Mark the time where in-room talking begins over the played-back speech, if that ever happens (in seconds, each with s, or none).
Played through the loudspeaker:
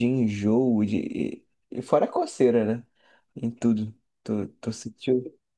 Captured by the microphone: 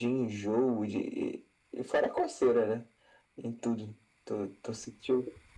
none